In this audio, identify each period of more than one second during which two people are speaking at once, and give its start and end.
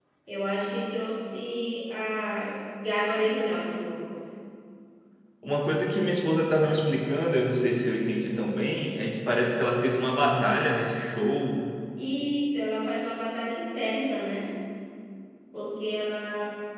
none

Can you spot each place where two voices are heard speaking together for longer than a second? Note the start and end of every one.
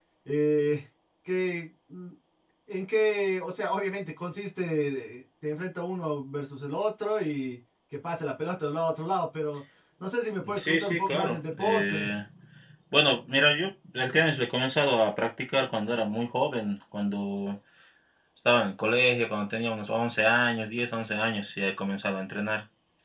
10.6-12.1

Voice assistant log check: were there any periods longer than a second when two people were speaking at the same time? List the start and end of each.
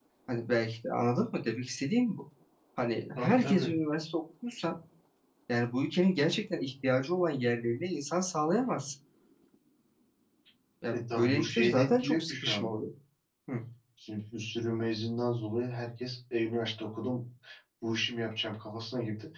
10.9-12.8

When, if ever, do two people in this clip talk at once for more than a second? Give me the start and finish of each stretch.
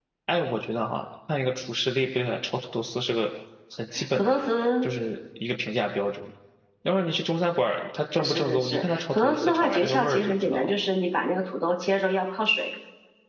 8.2-10.7

